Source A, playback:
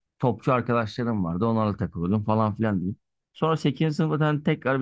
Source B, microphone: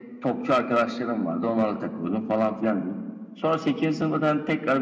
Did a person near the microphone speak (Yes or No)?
No